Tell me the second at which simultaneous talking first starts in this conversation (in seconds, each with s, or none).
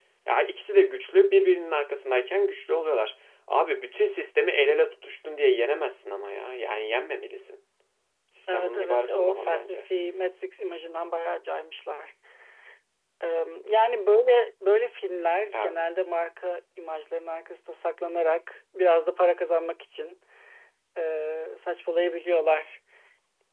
8.5 s